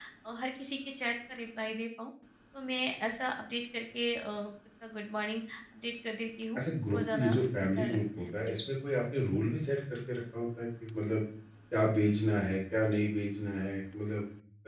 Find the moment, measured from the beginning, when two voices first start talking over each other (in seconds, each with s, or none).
6.5 s